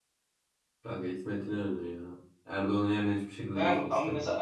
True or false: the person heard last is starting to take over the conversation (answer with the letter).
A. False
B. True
B